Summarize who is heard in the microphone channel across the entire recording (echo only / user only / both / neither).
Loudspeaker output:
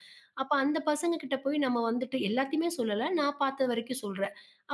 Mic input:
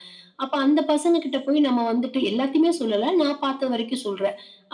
echo only